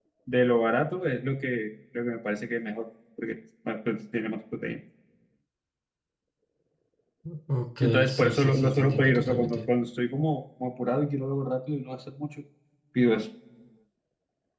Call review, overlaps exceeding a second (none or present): present